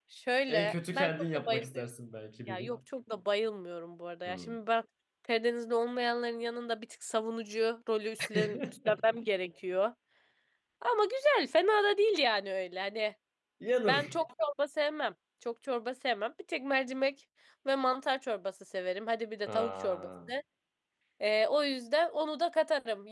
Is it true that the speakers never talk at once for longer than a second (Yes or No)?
No